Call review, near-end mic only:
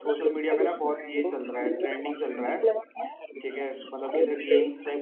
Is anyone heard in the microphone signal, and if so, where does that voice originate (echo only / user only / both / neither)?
both